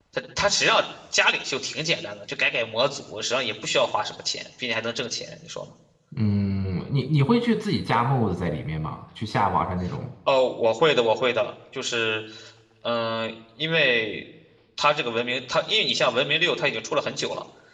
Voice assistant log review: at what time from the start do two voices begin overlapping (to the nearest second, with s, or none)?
none